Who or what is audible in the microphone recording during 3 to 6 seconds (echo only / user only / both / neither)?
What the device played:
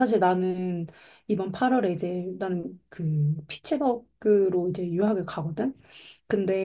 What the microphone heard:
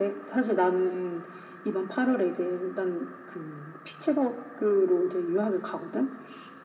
echo only